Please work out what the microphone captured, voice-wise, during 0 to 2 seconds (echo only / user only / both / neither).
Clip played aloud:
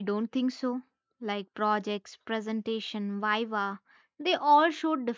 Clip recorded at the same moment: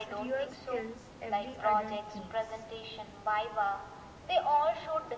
both